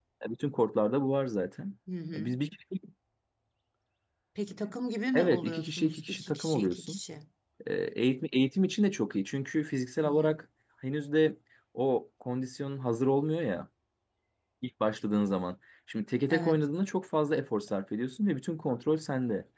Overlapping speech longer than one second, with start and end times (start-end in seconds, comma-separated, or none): 5.1-7.0